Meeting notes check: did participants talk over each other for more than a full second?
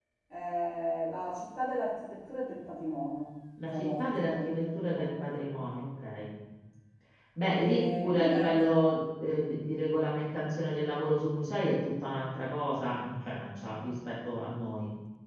Yes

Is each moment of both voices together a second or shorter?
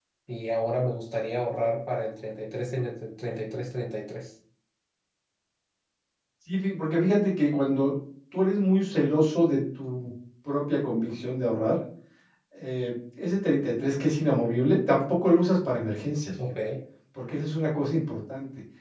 Yes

